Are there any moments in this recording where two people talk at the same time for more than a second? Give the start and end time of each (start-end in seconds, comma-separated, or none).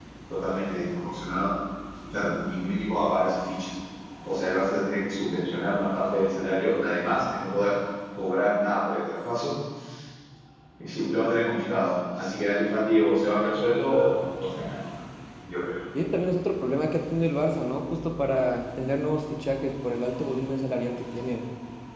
none